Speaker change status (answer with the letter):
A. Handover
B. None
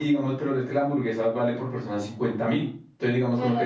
B